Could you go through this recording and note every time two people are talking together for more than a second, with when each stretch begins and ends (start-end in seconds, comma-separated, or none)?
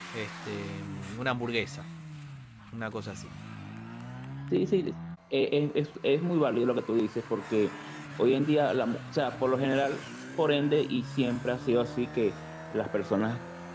none